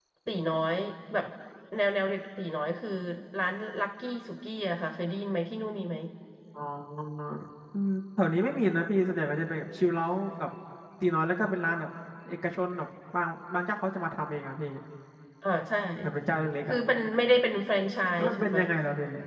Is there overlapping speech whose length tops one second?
No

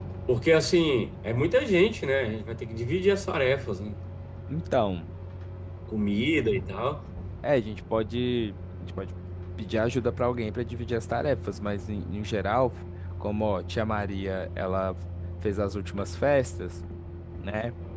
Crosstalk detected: No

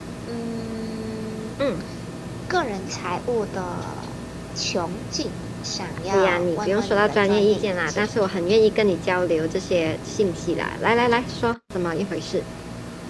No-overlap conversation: No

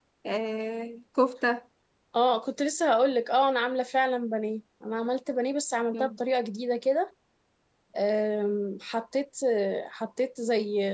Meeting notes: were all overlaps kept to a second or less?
Yes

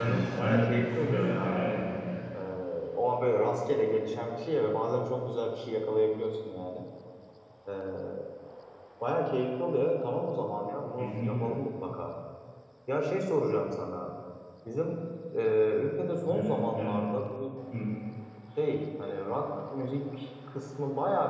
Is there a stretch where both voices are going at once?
Yes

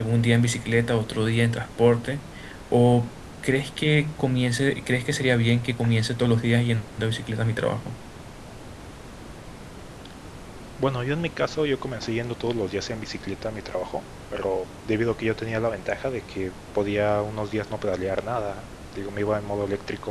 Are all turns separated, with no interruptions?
Yes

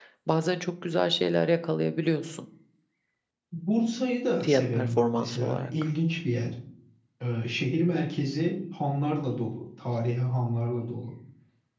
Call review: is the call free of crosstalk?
No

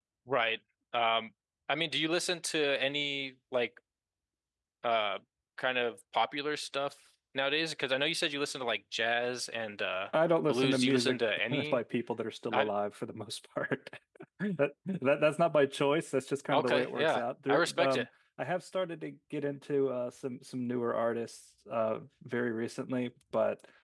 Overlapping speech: Yes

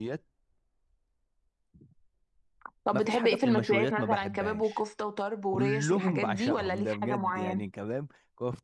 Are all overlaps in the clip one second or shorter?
No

